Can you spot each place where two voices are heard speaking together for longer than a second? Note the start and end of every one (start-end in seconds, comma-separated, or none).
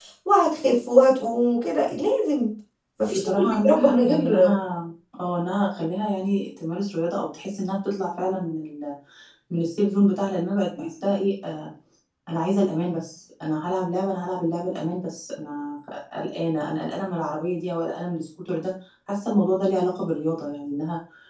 3.1-4.5